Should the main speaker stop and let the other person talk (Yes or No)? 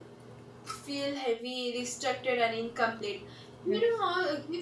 No